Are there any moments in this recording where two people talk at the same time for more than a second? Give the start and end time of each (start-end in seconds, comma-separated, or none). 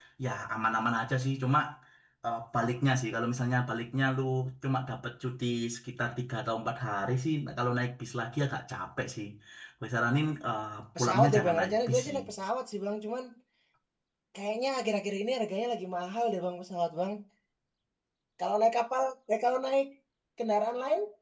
11.0-12.2